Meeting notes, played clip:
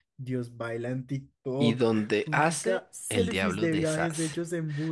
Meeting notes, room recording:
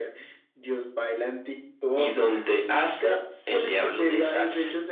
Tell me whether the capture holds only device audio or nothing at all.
Yes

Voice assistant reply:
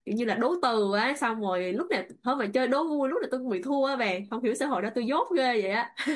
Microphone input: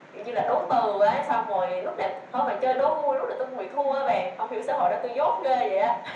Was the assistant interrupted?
No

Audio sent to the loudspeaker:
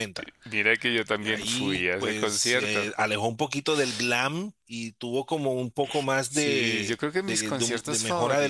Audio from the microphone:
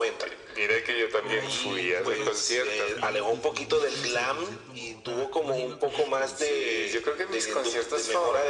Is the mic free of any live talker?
No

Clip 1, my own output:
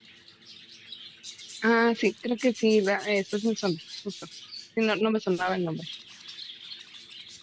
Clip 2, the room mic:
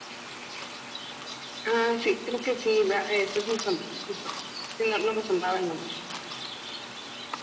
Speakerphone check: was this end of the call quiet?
Yes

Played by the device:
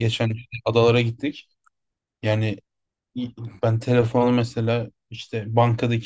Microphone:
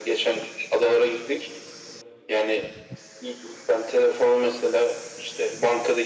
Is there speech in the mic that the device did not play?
No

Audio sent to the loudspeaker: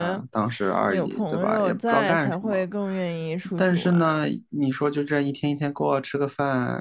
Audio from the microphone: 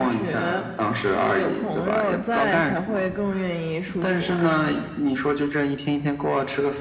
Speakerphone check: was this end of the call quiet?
Yes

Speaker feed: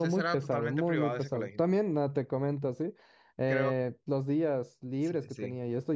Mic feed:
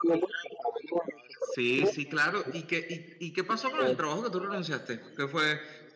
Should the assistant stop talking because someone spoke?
Yes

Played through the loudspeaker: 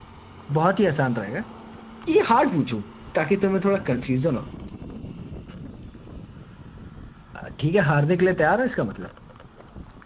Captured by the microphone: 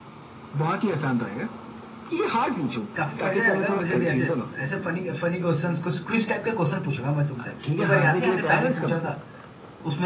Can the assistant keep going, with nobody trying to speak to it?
No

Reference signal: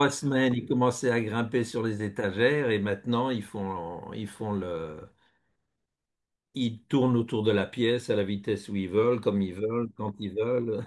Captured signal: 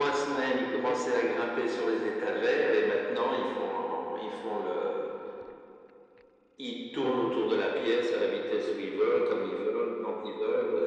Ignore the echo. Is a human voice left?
No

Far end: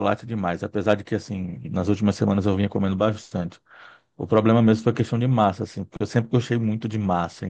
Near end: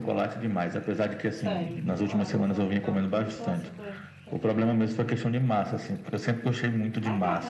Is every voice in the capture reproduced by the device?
No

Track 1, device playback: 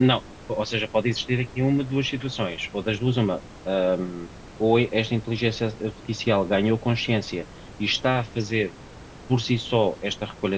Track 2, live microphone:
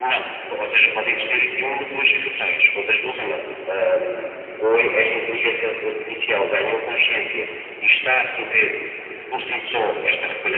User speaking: No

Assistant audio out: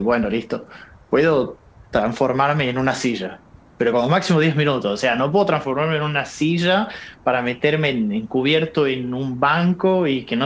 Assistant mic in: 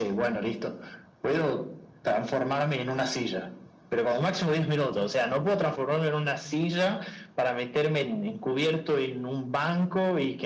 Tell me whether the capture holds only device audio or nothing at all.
Yes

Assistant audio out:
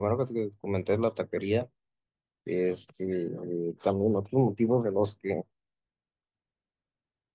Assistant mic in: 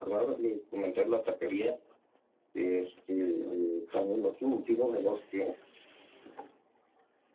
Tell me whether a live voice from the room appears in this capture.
No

